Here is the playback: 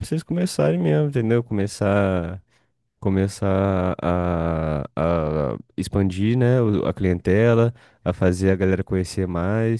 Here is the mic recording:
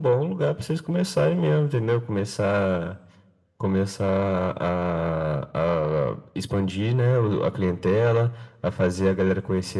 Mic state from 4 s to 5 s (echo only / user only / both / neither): echo only